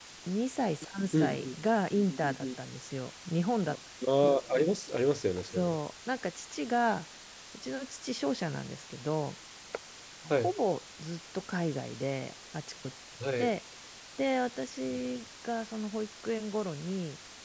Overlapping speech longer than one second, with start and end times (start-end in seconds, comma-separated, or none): none